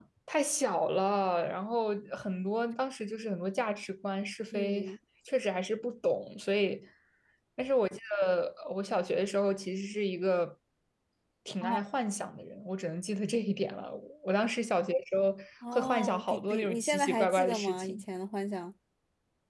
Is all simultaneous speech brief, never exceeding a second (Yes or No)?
No